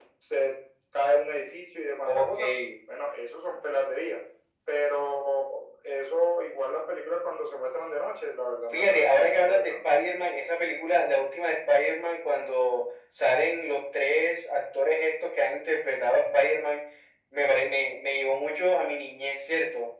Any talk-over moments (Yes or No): Yes